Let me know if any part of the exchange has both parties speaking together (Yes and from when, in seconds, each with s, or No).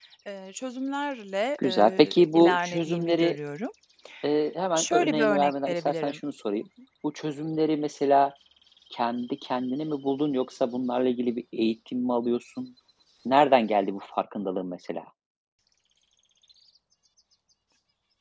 Yes, from 1.6 s